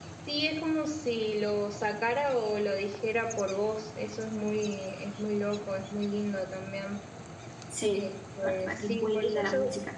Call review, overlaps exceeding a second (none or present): present